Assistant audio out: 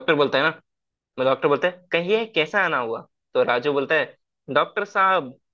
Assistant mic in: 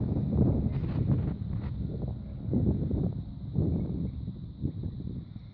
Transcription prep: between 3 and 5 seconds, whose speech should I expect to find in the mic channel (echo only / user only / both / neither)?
neither